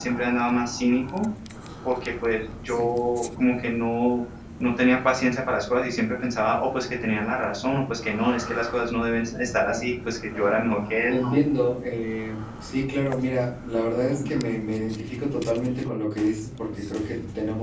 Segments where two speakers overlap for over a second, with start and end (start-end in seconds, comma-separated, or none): none